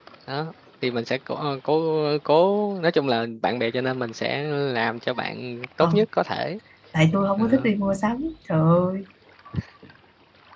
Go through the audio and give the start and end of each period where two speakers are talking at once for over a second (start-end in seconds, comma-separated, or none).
none